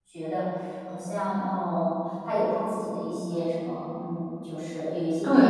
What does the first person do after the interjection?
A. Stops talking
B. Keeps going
A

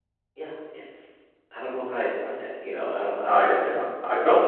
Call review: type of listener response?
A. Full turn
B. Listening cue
A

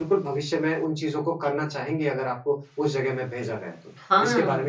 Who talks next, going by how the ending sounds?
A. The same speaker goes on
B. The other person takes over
B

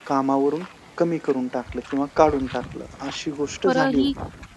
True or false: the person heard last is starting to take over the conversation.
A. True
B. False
A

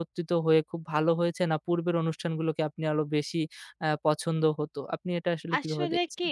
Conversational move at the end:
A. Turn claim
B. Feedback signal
A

